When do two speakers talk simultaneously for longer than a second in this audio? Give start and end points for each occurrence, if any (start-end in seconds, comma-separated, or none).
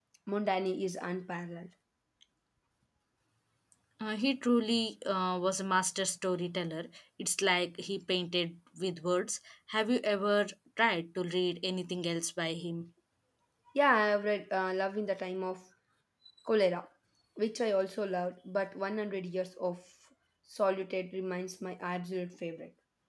none